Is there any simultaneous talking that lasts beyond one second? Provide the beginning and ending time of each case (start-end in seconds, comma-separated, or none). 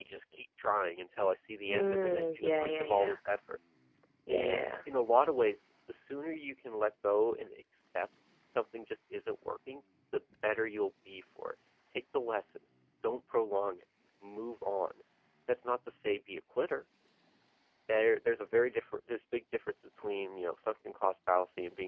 1.7-3.2